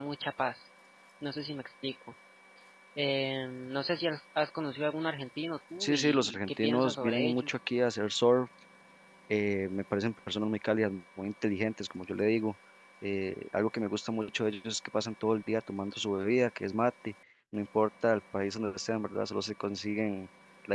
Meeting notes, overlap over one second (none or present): present